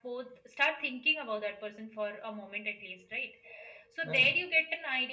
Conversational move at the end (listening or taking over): listening